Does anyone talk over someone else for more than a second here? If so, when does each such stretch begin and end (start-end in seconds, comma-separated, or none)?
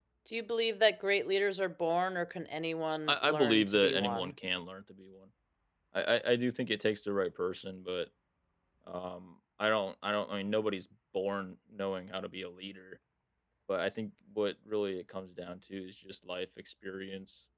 3.1-4.3